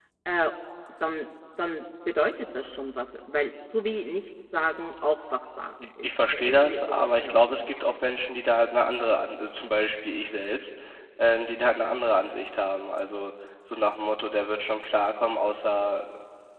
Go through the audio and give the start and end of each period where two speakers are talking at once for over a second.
6.0-7.7

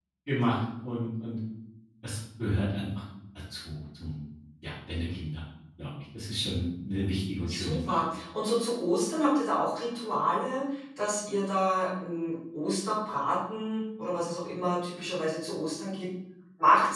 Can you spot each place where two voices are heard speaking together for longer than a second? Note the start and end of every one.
none

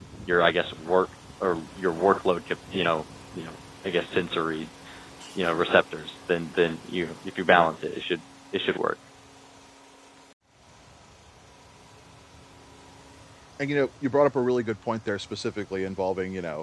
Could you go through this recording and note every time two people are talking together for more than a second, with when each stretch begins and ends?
none

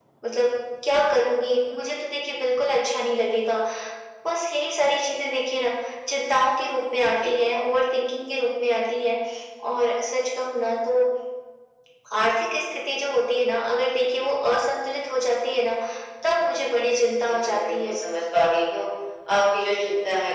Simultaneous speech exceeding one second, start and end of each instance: 16.3-17.9

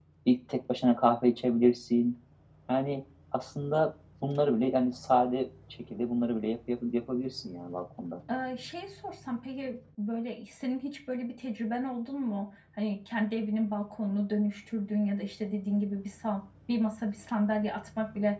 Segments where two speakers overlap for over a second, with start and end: none

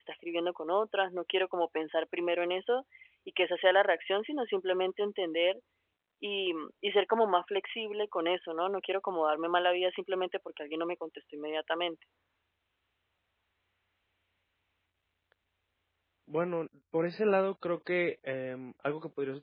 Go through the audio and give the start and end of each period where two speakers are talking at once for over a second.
none

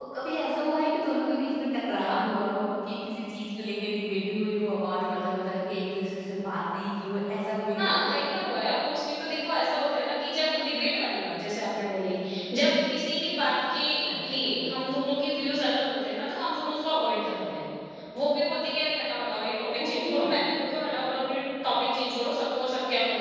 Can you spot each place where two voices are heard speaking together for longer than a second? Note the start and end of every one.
none

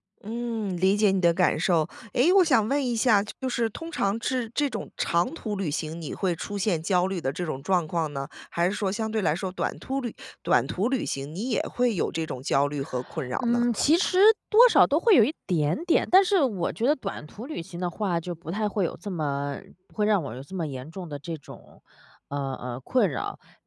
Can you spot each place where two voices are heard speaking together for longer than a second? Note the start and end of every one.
none

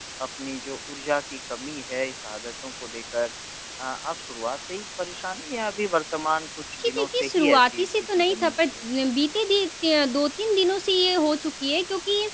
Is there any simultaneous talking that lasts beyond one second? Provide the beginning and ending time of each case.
6.8-8.8

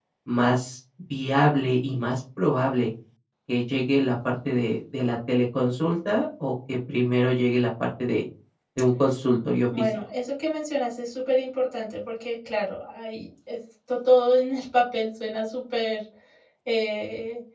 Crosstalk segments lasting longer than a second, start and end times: none

